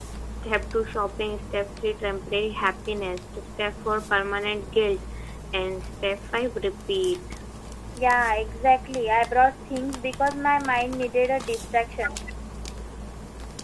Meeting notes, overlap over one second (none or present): none